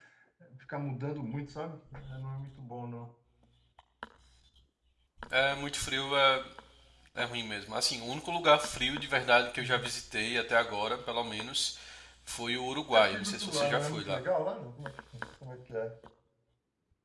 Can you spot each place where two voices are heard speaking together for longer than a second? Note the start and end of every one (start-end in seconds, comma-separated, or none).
12.9-14.2